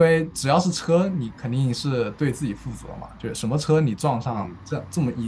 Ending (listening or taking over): listening